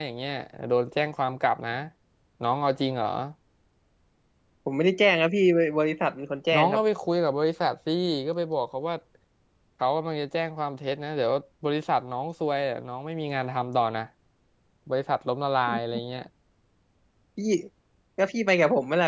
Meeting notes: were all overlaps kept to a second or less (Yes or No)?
Yes